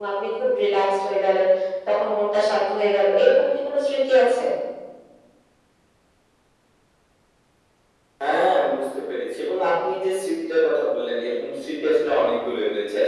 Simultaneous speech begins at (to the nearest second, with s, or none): none